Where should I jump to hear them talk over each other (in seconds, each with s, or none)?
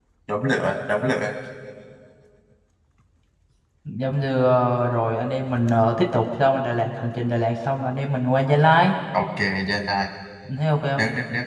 none